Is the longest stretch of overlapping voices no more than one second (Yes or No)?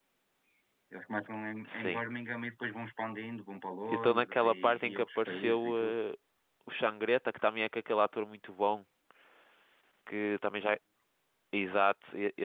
No